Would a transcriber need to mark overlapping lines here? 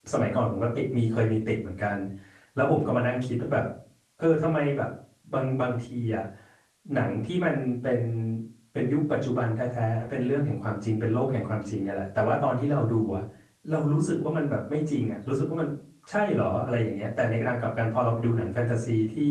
No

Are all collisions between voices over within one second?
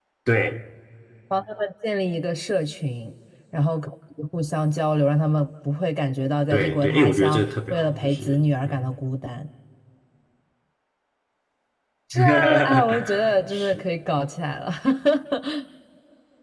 No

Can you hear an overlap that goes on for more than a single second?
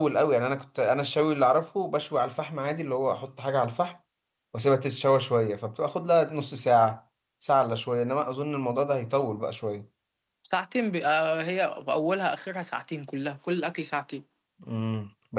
No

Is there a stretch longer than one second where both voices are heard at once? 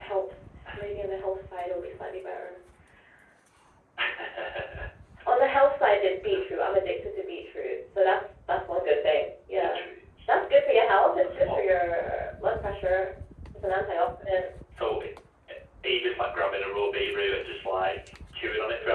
No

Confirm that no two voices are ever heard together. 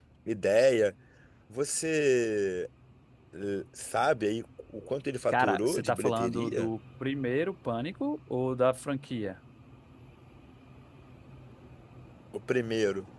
No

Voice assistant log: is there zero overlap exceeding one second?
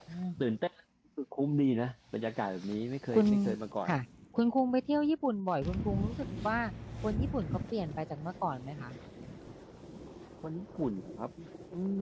Yes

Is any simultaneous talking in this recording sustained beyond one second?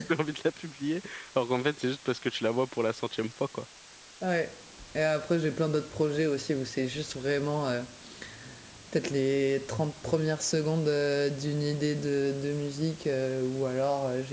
No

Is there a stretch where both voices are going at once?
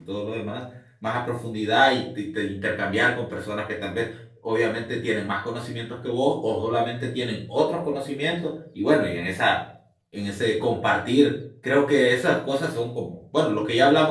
No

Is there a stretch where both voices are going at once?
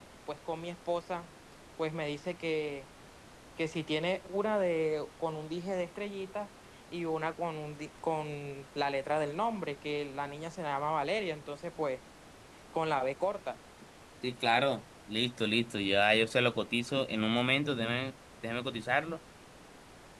No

